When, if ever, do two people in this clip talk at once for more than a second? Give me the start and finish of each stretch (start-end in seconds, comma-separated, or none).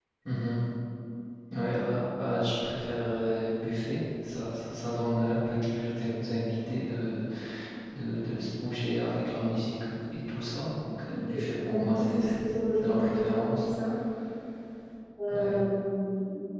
11.1-13.6